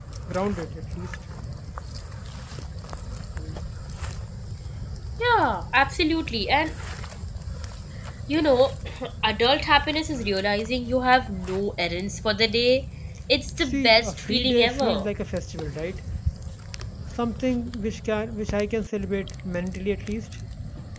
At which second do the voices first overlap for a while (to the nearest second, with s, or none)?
14 s